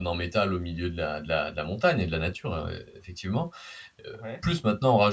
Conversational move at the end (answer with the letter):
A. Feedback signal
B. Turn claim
A